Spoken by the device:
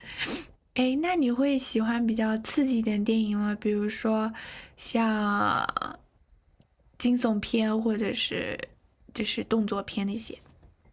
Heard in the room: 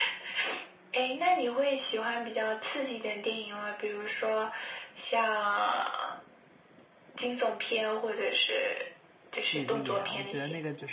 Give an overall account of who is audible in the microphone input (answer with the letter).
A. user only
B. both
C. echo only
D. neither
B